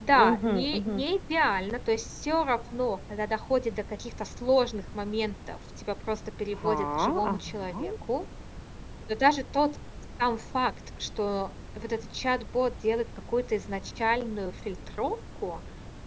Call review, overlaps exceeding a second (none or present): present